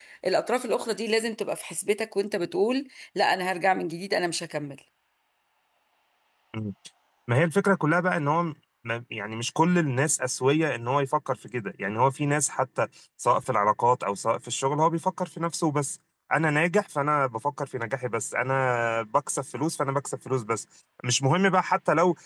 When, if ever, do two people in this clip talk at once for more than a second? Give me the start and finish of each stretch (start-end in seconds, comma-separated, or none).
none